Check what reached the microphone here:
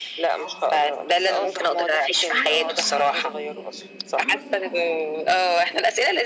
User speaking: Yes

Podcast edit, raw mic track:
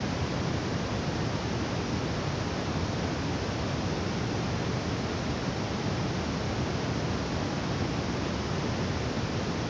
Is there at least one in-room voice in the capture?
No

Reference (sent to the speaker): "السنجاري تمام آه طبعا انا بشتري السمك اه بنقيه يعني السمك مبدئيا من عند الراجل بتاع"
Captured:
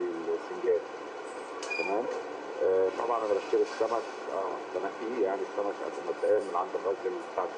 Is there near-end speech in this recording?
No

